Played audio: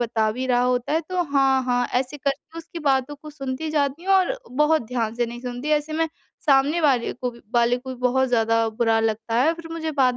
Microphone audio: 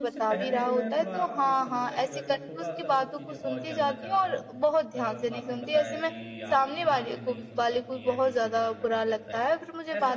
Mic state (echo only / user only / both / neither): both